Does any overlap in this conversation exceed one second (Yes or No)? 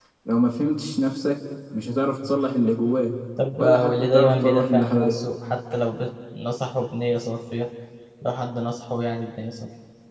Yes